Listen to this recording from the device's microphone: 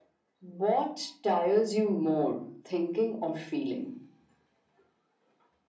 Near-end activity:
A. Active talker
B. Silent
B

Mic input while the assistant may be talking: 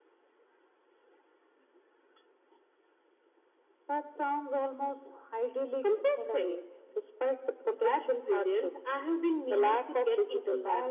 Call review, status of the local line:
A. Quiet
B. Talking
A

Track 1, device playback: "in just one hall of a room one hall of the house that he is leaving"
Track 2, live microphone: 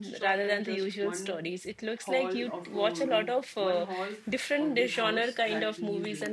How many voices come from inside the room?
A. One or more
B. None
A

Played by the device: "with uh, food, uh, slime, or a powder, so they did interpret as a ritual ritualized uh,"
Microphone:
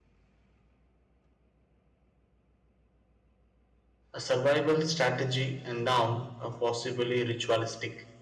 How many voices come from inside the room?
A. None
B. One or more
B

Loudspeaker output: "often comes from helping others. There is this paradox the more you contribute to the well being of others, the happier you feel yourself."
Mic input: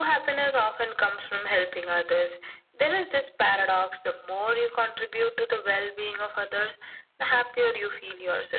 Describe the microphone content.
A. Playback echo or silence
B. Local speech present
A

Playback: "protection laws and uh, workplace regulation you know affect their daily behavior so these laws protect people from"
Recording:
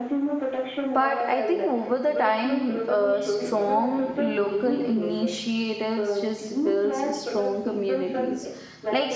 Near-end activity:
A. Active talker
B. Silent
A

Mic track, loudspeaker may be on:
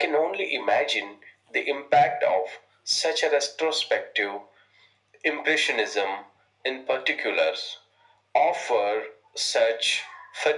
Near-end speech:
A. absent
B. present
A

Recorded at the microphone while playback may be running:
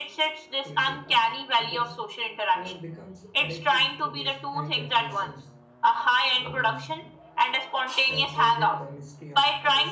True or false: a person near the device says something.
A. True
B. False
A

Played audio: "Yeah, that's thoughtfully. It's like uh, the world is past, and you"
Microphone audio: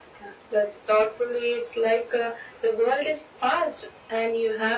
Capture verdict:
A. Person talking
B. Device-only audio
B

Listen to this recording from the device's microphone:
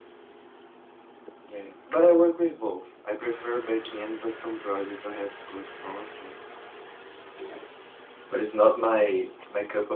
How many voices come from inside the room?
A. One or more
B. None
B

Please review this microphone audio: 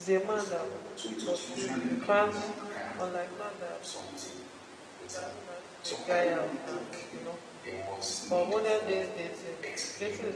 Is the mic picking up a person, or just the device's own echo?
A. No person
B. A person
B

